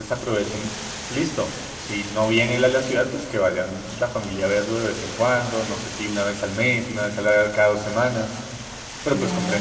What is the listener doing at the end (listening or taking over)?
taking over